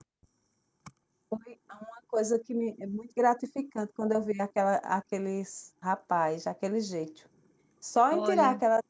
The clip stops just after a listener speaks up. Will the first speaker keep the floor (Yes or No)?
Yes